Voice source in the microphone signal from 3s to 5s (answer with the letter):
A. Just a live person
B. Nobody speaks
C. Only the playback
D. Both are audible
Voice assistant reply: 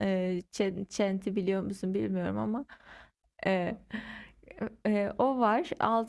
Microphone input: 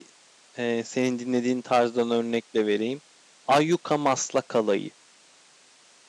A